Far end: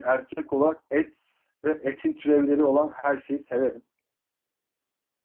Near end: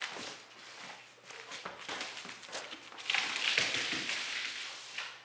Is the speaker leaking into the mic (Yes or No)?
No